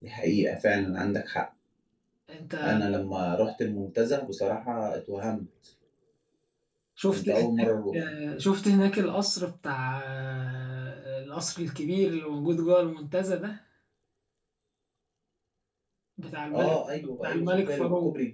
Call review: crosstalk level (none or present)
present